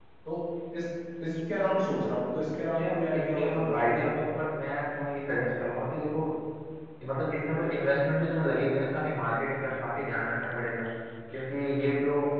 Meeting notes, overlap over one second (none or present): present